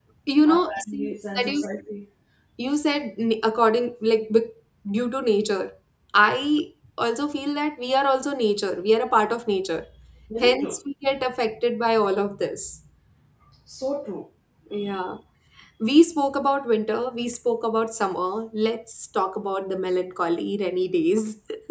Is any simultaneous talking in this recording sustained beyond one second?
Yes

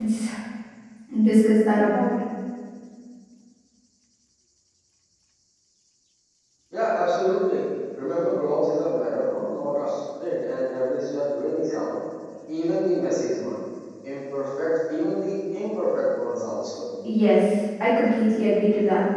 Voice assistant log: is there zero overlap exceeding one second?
Yes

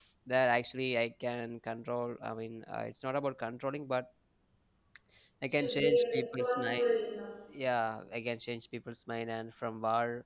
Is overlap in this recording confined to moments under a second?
No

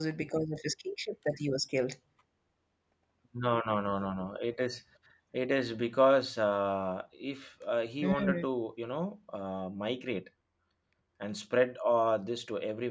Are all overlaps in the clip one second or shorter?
Yes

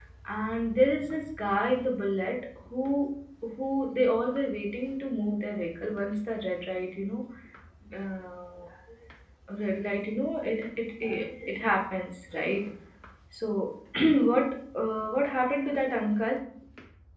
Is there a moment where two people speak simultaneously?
No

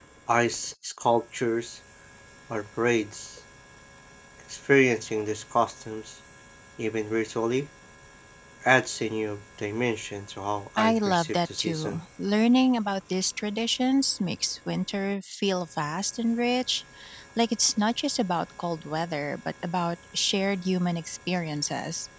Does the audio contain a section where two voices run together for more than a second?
Yes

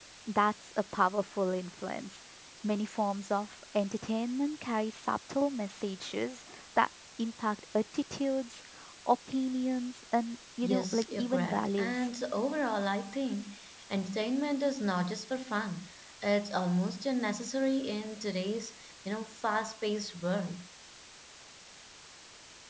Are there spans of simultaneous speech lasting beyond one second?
Yes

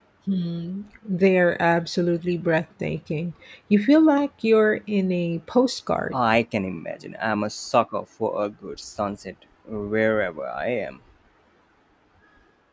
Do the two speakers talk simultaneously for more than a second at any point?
No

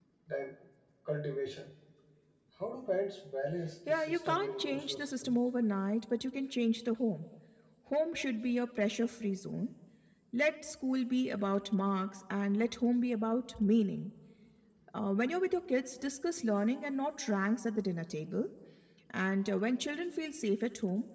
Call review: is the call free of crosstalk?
No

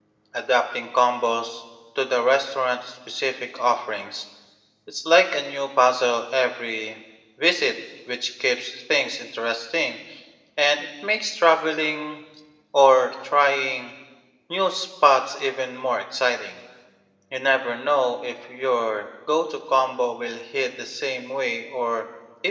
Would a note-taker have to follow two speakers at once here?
No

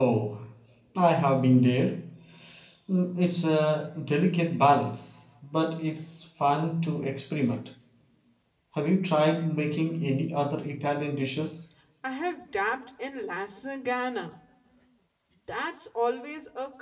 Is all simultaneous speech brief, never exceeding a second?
Yes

